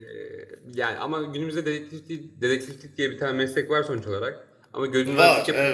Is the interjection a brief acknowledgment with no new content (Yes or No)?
Yes